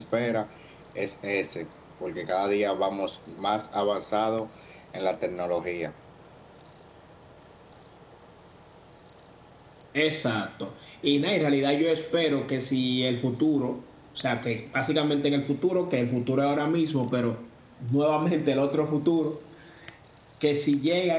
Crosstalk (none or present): none